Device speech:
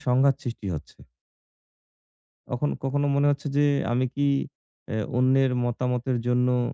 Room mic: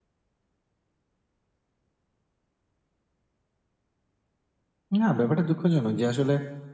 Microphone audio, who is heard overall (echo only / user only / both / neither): user only